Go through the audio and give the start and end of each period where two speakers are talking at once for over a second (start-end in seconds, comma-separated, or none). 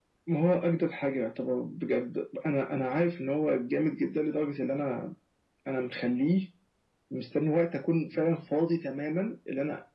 none